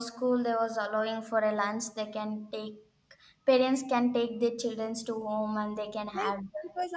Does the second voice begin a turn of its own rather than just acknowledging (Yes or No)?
Yes